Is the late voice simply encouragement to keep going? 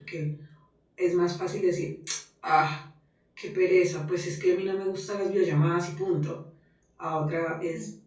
Yes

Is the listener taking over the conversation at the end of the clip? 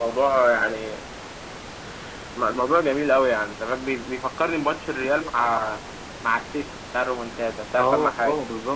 Yes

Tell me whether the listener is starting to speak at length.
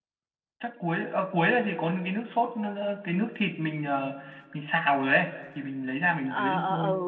Yes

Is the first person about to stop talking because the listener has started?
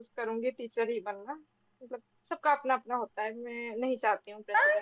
Yes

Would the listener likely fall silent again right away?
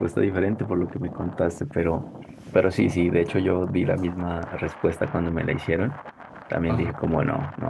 Yes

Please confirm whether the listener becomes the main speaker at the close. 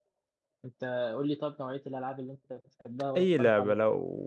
Yes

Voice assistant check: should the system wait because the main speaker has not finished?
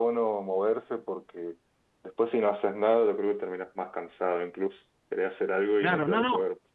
No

